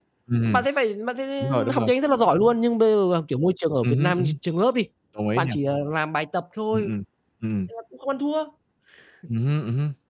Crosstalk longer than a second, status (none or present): none